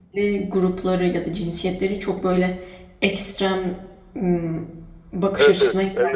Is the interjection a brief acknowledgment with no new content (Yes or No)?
No